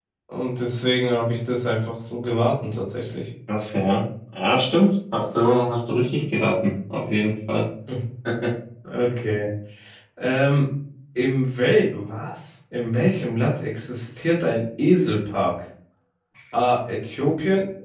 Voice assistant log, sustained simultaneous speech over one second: none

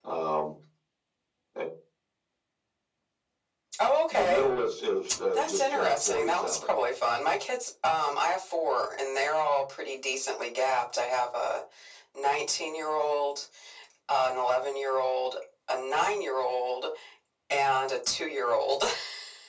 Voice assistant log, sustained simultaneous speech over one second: present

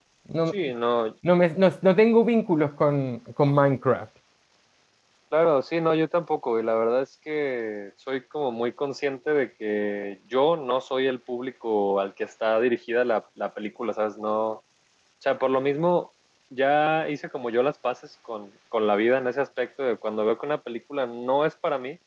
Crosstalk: none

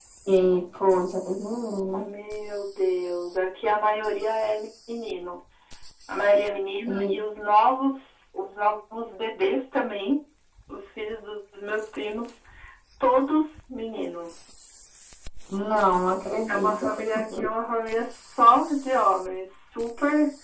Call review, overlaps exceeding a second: none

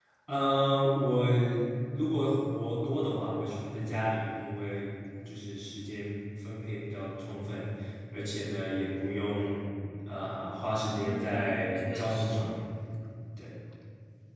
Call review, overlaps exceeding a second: present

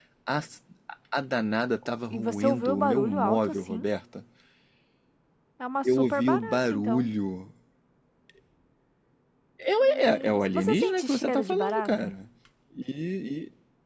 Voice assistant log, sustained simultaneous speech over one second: present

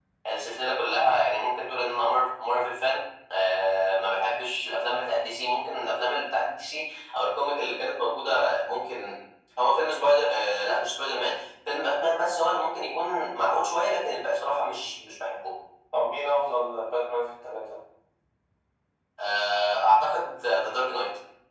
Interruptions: none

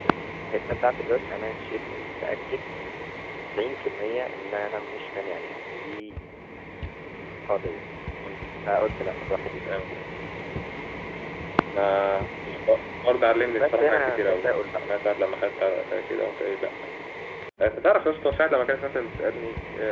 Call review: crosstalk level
present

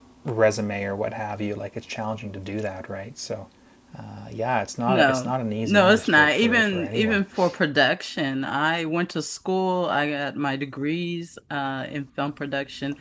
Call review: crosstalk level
present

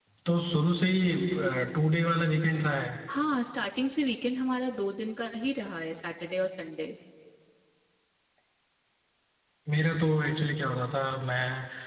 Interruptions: none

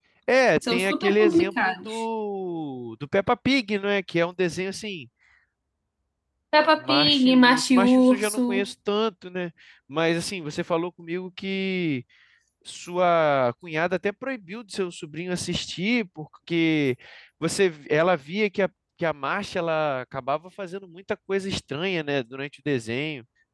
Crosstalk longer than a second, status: present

